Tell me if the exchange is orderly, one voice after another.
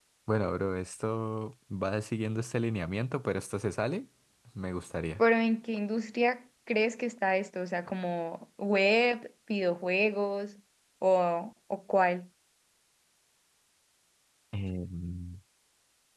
Yes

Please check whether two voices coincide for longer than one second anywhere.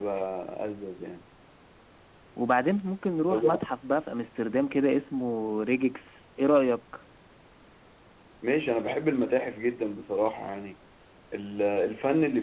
No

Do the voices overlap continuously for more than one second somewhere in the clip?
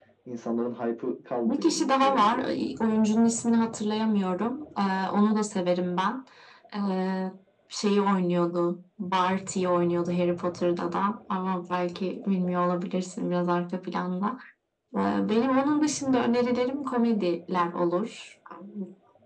Yes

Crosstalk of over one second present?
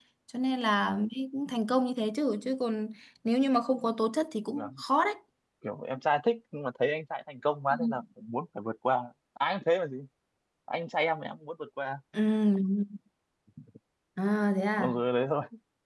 No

